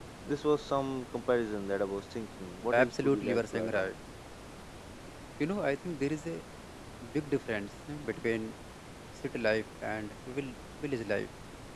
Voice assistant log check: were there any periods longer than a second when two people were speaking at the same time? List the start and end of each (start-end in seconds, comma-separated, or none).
2.7-3.9